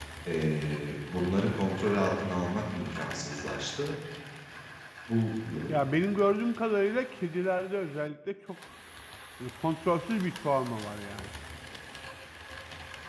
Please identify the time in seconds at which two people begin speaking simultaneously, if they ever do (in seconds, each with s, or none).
none